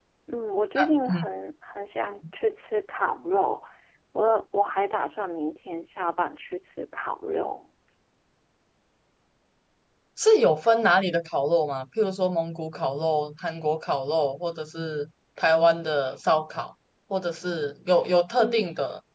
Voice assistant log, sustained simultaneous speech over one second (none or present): none